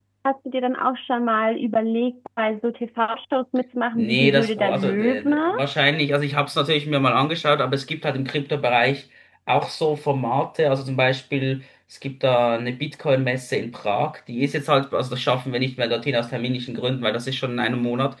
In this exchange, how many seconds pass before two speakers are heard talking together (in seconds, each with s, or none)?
4.0 s